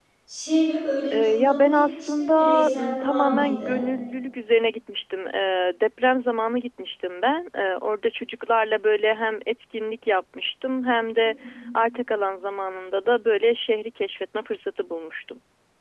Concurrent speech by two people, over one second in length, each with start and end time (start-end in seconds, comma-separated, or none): 1.1-3.8